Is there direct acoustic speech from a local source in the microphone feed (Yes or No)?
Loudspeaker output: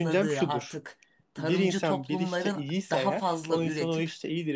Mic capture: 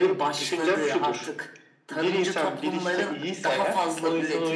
No